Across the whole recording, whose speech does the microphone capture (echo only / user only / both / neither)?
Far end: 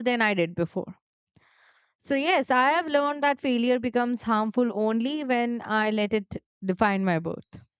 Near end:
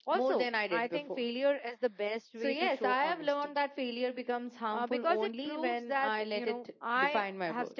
both